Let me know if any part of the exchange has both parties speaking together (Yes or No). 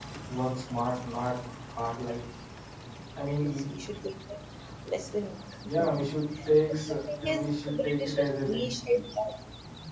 Yes